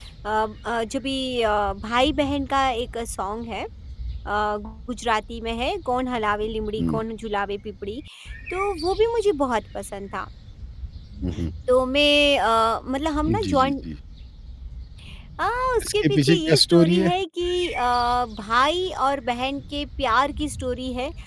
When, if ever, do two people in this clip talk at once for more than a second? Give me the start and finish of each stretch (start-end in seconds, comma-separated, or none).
15.8-17.1